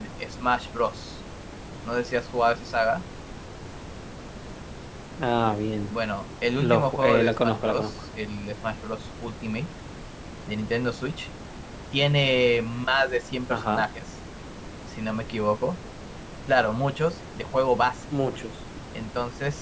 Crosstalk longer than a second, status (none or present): present